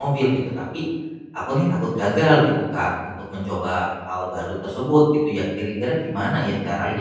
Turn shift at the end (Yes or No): No